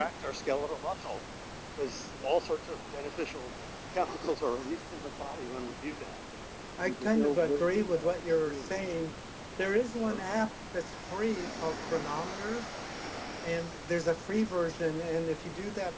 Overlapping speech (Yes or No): Yes